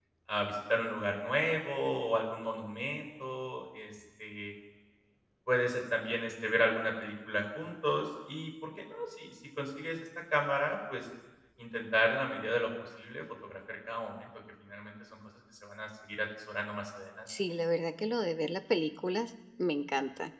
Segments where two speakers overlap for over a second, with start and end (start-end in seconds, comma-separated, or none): none